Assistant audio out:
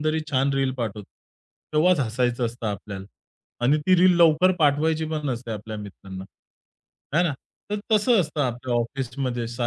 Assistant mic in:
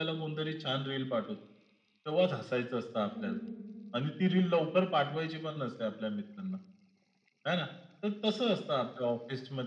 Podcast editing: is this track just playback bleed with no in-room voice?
No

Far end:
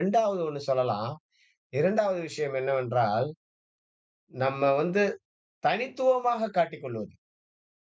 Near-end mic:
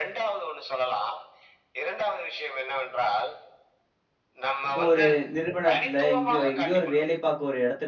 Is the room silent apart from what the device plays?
No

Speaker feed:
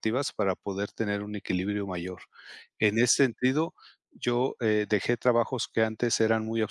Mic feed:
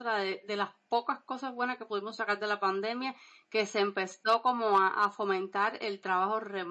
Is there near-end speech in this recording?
Yes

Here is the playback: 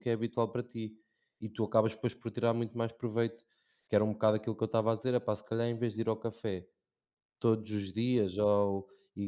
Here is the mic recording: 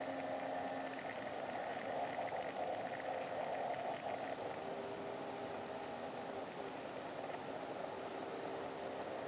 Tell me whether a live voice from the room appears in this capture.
No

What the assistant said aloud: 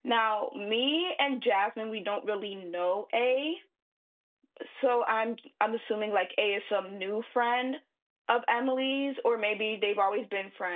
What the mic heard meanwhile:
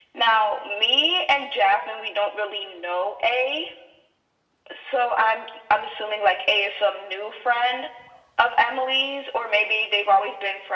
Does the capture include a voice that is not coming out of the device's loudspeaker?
No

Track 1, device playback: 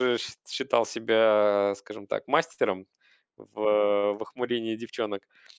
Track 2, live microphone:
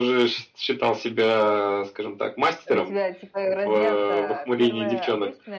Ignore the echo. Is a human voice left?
Yes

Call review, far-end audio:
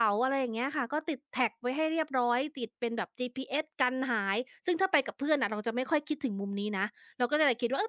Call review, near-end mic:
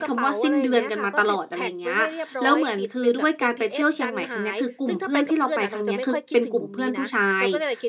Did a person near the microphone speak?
Yes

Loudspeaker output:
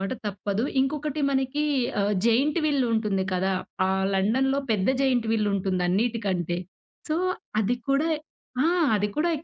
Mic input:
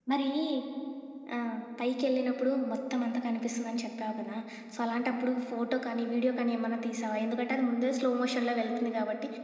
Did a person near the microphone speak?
Yes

